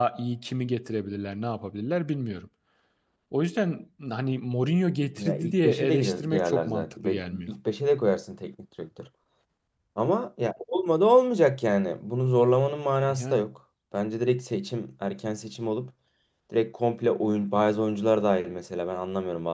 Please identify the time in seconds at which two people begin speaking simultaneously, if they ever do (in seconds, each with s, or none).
5.2 s